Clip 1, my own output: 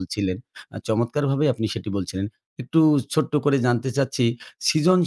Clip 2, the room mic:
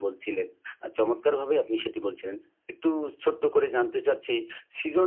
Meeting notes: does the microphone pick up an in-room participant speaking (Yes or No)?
No